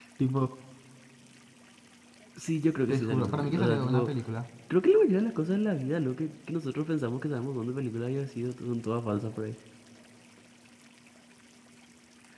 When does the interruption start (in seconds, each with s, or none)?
2.9 s